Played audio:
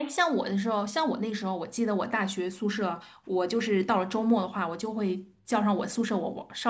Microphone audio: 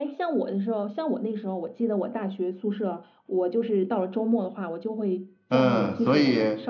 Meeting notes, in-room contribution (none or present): present